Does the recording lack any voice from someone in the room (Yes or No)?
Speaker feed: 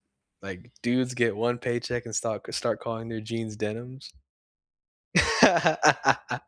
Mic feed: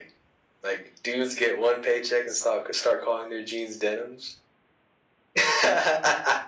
Yes